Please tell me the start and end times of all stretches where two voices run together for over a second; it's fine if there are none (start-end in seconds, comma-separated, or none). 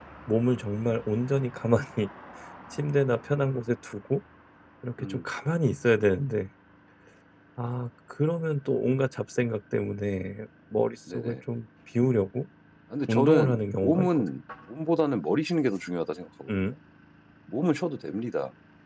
13.0-14.3